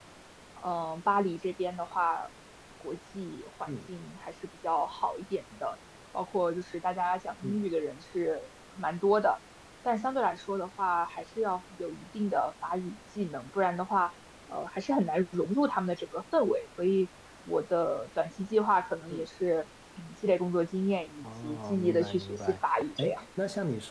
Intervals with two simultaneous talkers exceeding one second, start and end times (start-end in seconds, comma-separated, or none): 21.2-23.2